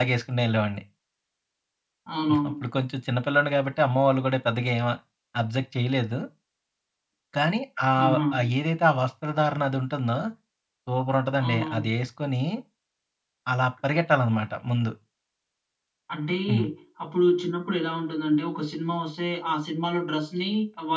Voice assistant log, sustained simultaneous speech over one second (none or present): none